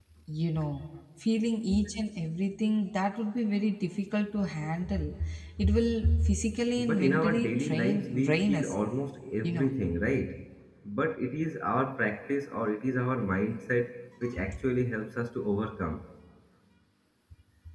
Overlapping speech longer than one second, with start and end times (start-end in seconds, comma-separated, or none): 6.8-8.7